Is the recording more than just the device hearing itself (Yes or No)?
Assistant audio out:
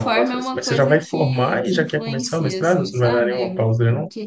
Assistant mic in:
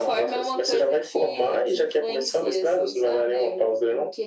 No